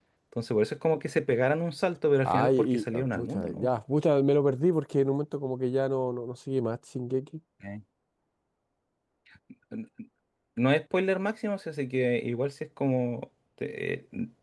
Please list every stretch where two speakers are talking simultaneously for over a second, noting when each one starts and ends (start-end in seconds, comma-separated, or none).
2.2-3.7